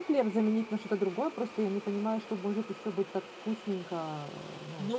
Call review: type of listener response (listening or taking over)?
taking over